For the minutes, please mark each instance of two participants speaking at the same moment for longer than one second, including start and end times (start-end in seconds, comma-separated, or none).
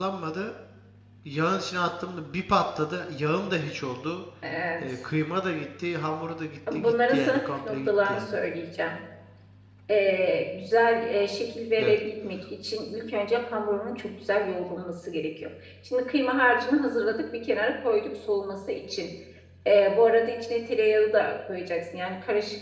6.7-8.2